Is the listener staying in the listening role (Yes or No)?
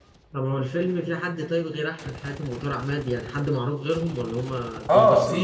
No